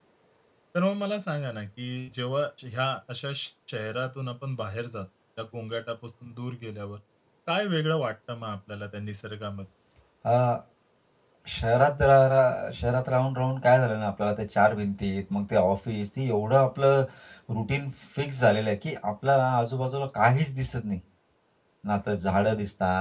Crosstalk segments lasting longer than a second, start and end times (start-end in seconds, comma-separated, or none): none